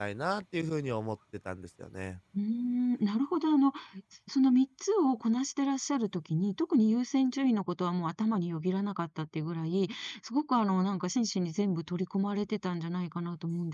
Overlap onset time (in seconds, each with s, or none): none